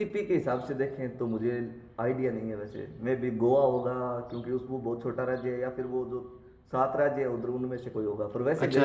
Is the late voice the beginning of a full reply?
Yes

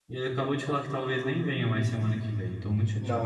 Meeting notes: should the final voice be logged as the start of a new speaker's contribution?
Yes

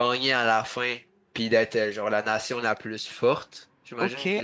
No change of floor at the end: No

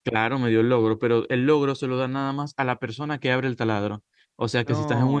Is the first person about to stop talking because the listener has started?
No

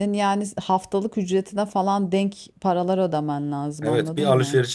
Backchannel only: No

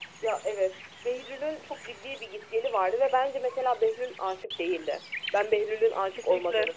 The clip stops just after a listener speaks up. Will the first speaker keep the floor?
Yes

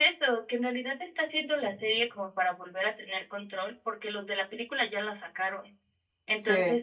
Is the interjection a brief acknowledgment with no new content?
Yes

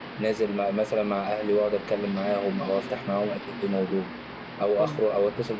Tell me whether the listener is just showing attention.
Yes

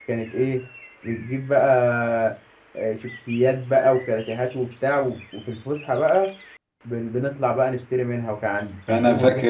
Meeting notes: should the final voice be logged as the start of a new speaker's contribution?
Yes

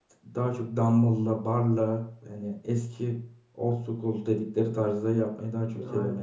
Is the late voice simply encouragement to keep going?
Yes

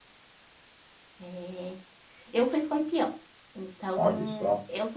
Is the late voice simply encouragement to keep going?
Yes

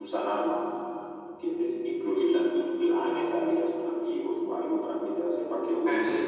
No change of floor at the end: Yes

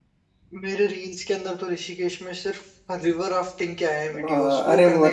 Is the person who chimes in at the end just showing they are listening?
No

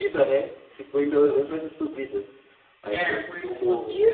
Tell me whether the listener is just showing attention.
No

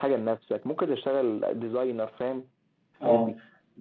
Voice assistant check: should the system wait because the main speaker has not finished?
No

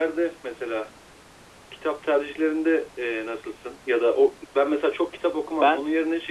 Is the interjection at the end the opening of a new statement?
No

